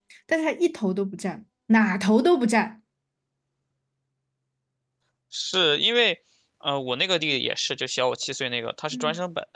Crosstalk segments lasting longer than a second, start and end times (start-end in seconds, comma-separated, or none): none